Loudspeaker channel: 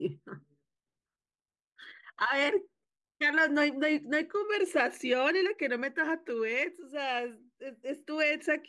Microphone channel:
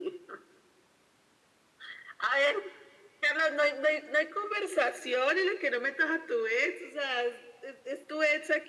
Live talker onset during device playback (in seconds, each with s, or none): none